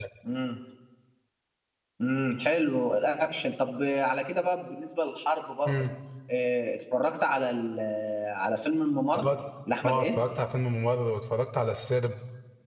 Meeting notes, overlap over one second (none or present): none